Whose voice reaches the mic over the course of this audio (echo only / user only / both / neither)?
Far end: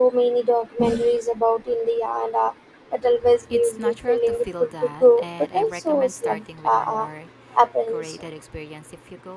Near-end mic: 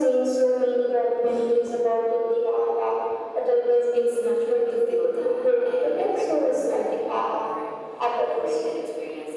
echo only